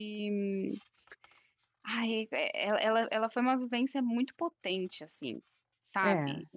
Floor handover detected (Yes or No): No